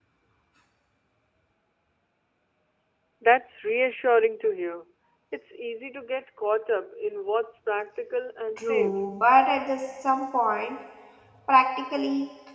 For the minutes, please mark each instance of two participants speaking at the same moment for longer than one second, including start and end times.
none

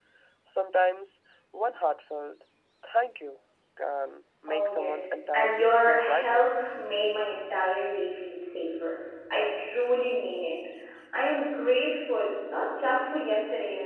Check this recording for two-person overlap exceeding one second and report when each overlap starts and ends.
4.5-6.5

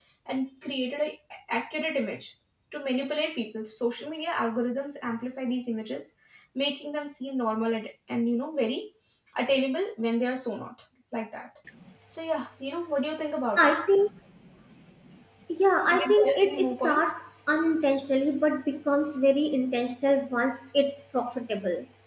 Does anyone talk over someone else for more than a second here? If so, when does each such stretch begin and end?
15.9-17.1

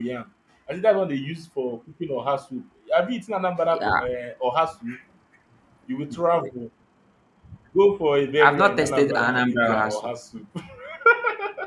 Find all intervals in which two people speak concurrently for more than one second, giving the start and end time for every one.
8.4-10.0

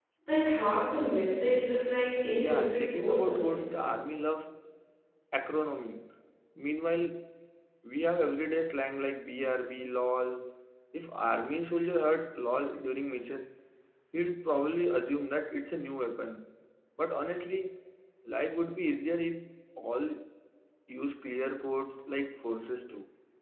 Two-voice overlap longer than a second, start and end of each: 2.4-3.8

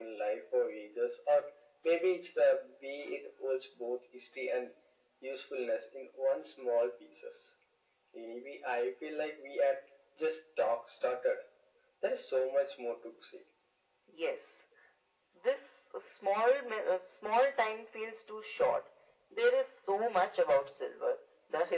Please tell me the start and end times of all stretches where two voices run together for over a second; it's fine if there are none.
none

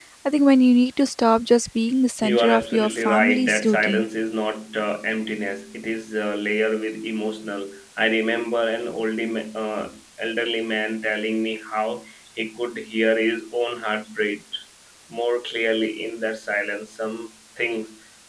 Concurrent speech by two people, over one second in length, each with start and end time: 2.3-4.1

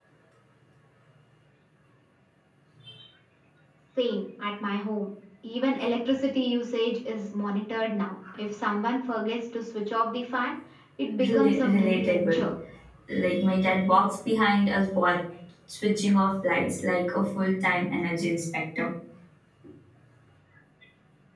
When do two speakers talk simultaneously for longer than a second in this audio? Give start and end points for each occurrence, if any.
11.2-12.4

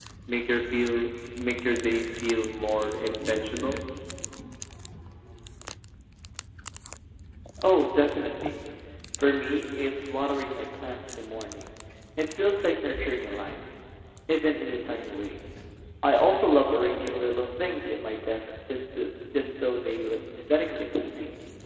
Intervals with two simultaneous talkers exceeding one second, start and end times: none

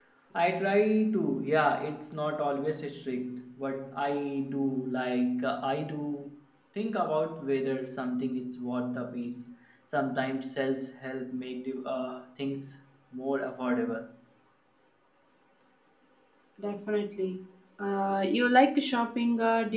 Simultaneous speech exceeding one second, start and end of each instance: none

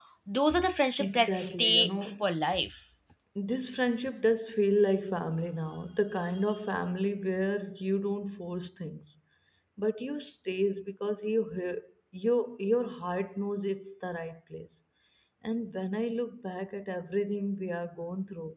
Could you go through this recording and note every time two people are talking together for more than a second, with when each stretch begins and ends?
1.0-2.2

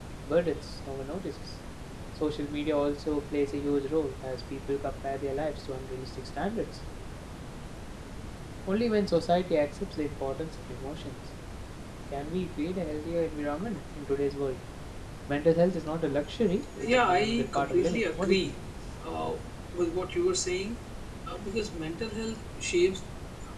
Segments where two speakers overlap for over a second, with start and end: 16.9-18.5

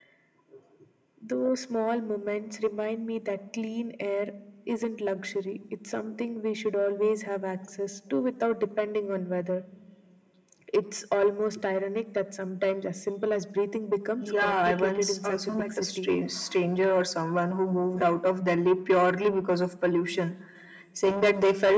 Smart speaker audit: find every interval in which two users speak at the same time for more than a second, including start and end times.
14.2-16.1

